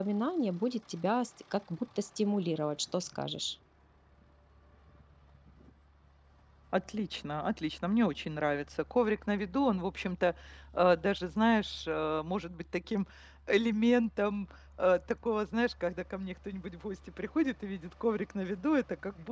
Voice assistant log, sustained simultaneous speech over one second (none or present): none